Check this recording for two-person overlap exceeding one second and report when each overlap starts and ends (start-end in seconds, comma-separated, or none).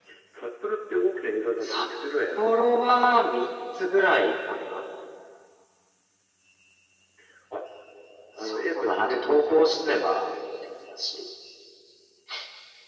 8.4-9.7